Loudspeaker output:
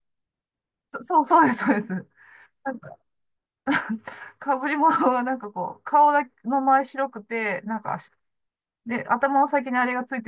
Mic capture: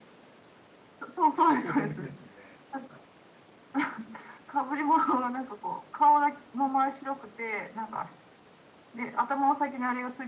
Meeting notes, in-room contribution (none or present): present